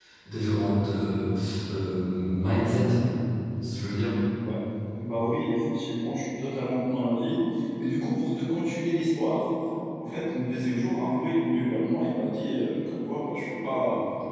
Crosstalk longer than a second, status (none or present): none